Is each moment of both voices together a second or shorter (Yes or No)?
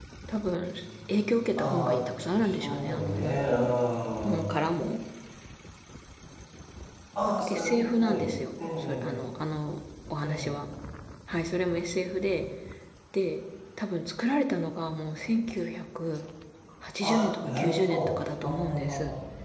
No